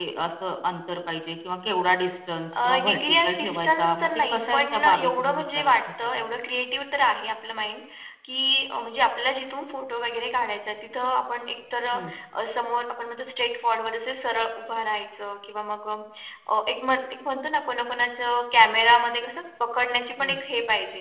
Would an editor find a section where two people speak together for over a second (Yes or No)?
Yes